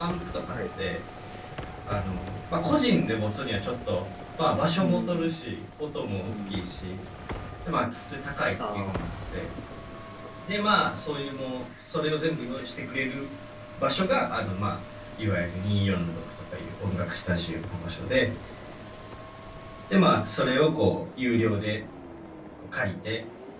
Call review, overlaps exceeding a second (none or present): none